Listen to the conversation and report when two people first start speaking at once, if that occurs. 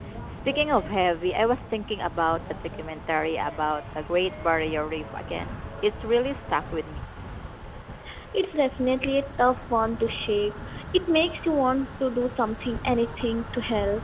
none

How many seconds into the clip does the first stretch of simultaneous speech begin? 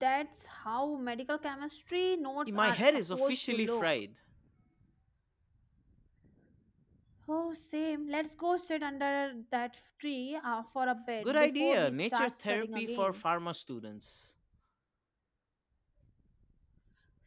2.5 s

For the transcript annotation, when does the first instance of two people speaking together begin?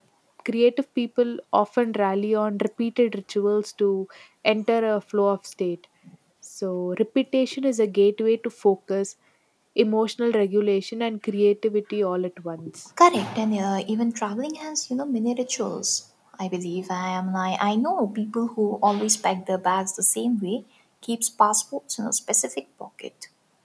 none

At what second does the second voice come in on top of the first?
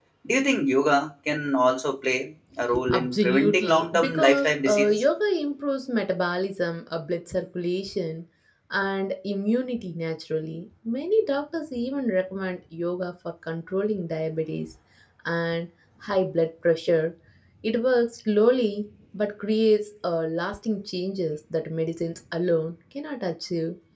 2.9 s

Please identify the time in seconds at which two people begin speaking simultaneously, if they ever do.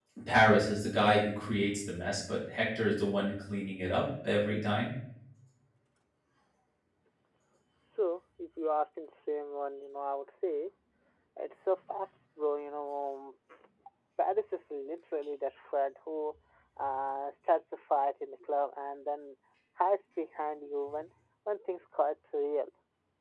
none

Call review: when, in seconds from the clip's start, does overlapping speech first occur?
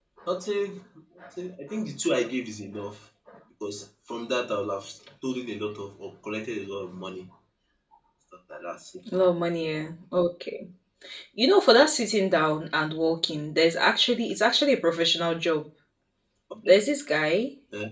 none

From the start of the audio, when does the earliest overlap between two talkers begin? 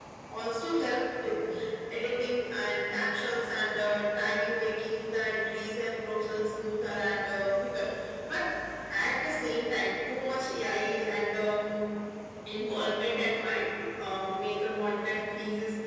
none

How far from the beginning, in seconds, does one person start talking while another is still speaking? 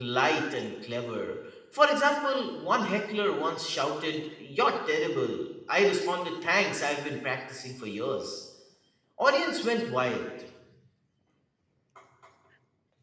none

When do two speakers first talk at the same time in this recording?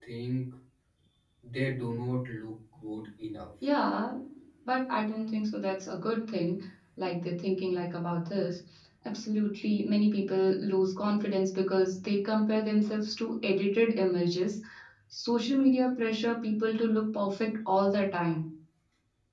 none

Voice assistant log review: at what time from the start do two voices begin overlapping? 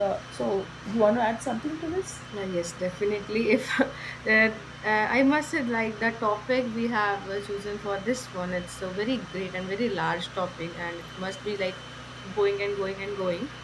none

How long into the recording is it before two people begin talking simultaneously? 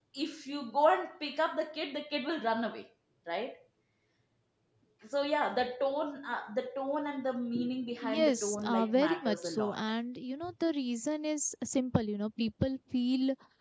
8.0 s

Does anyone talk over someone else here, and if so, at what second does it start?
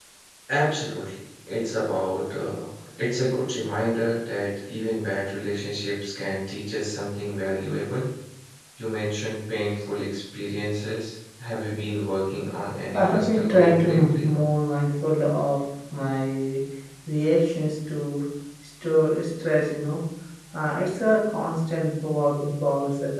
12.9 s

